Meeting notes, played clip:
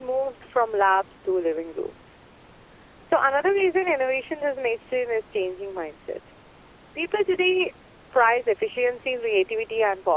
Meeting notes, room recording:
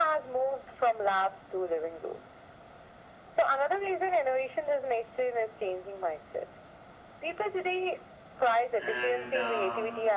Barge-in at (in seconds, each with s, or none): 8.8 s